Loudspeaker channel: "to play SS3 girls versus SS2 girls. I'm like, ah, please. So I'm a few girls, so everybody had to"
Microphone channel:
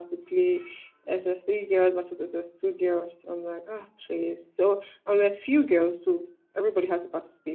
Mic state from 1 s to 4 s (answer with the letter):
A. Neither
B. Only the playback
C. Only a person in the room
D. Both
B